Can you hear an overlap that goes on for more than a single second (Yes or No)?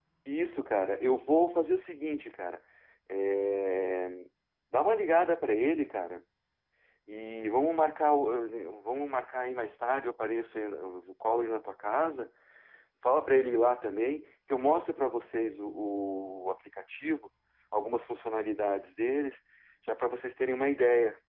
No